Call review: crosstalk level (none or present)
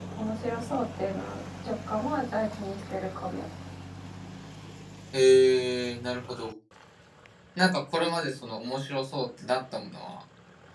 none